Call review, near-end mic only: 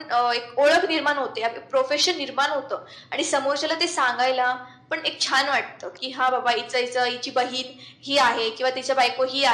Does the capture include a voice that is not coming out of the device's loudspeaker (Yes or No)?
No